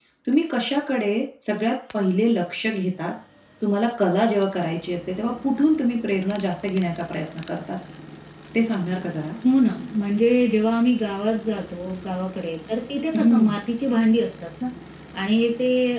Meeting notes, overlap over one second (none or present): none